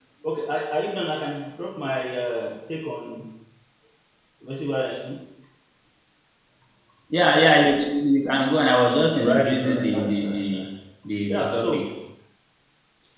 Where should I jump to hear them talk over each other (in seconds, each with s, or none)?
9.2 s